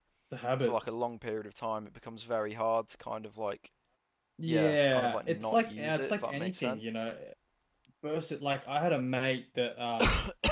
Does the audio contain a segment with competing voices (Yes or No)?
Yes